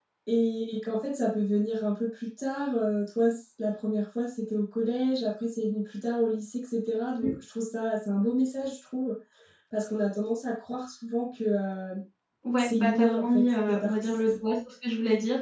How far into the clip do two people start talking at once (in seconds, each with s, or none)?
12.6 s